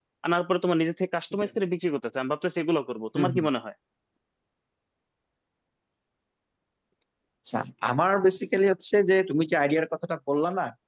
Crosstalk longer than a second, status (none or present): none